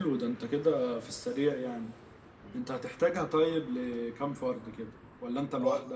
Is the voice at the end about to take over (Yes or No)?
Yes